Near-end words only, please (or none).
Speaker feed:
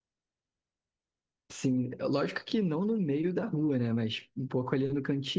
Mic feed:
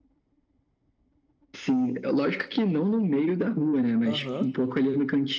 Aham,